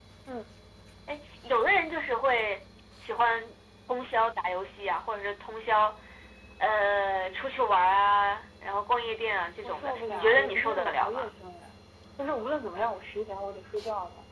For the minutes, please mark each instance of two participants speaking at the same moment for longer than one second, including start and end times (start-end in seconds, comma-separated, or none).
9.6-11.3